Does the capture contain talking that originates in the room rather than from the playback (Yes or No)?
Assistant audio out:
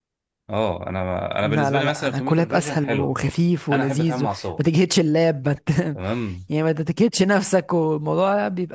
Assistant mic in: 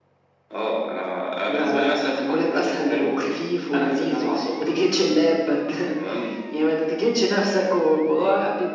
No